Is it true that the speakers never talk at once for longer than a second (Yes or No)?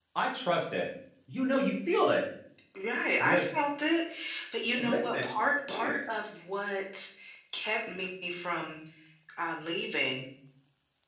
Yes